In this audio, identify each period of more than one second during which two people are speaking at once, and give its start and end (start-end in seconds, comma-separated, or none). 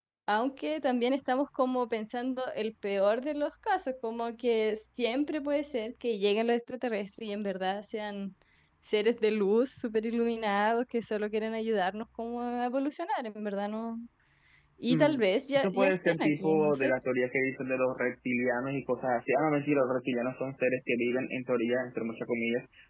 15.6-16.9